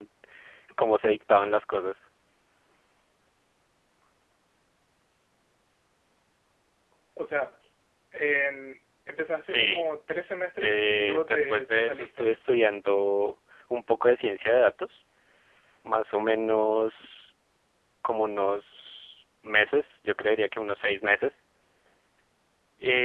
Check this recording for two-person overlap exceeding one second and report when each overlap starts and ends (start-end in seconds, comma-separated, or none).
10.6-12.4